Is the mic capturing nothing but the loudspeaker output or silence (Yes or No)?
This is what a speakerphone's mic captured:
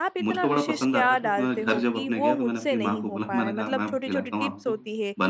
No